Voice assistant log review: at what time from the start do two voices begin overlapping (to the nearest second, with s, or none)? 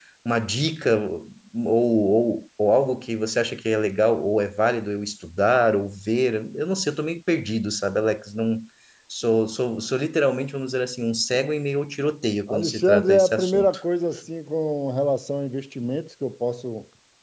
12 s